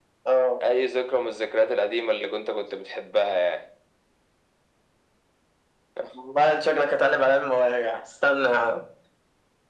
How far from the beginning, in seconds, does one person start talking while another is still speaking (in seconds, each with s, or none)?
none